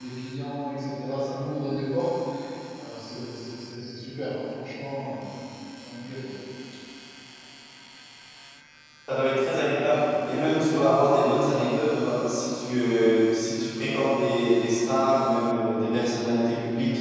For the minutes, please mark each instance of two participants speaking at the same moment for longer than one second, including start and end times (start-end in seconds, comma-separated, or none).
none